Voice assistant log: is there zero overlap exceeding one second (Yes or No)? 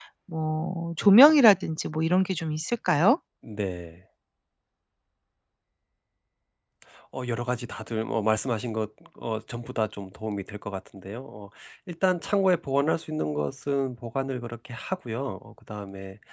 Yes